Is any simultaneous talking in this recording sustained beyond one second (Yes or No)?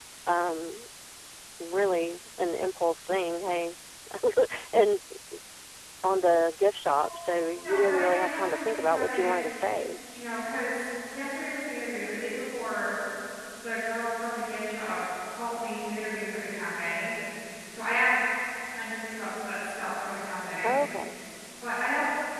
Yes